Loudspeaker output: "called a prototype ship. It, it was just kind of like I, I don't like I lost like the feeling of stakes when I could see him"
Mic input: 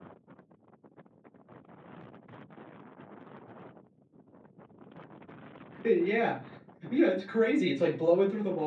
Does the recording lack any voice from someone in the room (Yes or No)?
No